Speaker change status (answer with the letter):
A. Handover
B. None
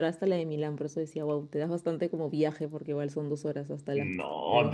A